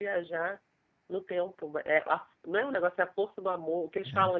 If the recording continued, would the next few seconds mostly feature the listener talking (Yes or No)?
No